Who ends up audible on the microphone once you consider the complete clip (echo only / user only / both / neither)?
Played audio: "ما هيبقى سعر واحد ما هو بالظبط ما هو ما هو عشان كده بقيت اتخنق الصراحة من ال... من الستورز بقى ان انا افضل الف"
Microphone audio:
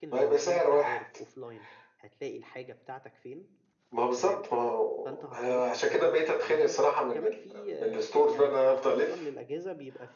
both